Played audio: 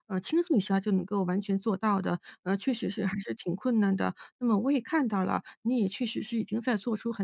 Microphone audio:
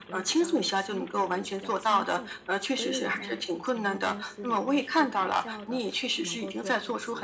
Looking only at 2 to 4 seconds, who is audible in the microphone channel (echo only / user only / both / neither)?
both